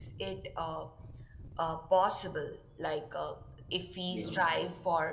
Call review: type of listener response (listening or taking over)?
listening